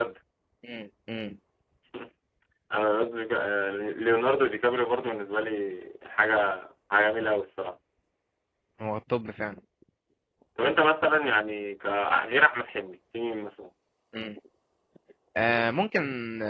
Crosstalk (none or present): none